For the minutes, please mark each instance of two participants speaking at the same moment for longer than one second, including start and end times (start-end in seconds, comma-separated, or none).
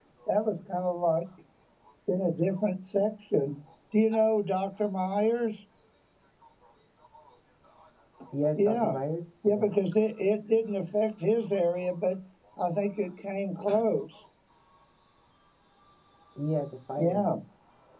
none